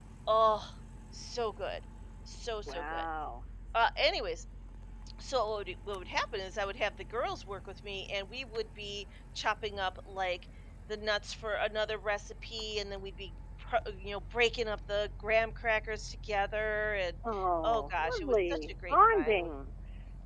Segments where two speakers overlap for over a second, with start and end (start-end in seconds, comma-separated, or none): 17.6-19.5